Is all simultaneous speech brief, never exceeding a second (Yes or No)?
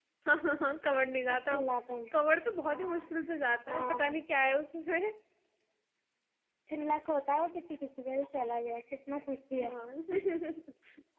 Yes